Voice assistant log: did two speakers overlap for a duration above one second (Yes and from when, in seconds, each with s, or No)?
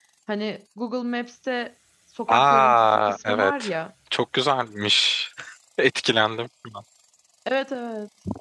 Yes, from 2.3 s